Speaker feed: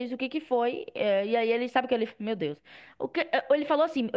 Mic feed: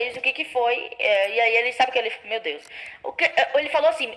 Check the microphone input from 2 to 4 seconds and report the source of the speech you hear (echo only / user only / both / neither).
echo only